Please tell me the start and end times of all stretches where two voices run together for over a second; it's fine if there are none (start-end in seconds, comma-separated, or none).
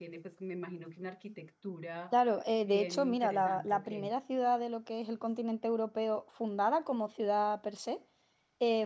2.6-3.9